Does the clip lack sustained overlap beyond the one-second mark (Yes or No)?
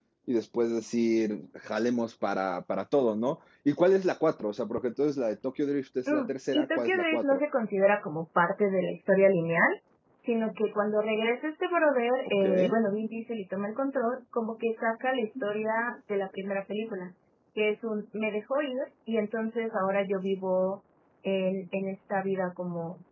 No